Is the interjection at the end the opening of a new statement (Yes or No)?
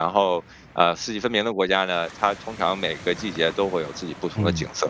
Yes